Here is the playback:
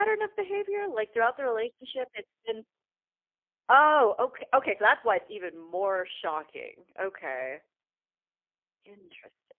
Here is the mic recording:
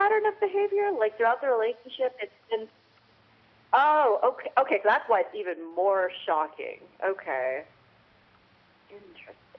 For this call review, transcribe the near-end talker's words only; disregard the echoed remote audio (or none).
none